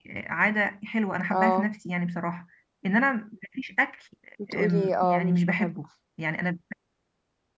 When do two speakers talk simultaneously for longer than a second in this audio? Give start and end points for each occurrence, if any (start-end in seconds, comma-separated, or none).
4.5-5.8